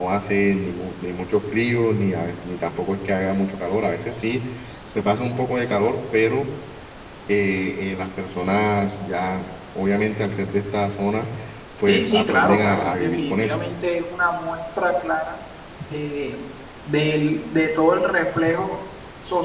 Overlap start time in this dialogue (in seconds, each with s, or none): 11.9 s